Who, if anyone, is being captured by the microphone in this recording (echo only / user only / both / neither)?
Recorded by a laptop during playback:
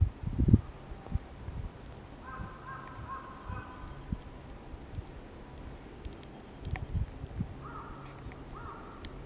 neither